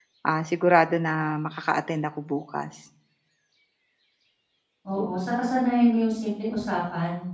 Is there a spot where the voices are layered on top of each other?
No

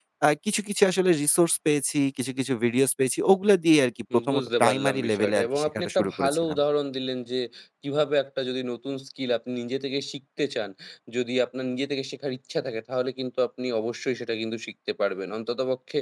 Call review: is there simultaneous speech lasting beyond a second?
Yes, from 4.1 s

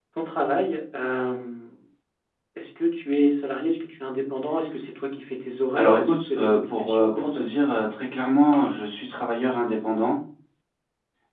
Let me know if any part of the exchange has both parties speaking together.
Yes, from 5.8 s

